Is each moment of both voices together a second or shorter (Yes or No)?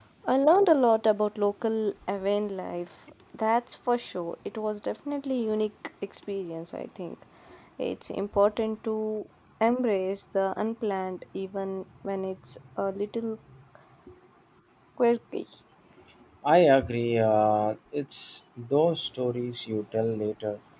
Yes